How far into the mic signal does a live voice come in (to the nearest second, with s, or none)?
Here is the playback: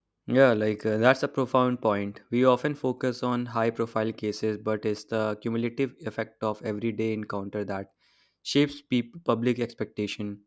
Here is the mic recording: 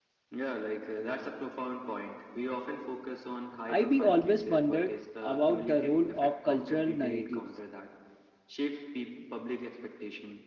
4 s